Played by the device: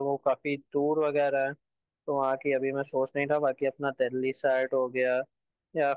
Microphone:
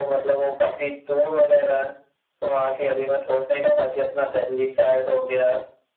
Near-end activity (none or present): none